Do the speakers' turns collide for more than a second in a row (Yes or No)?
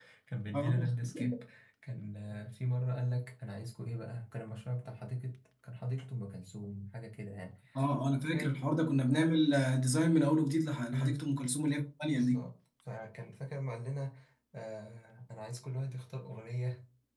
No